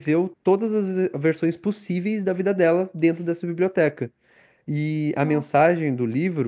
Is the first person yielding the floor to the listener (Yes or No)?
No